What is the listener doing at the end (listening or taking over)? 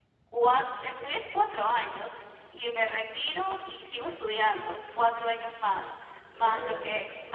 listening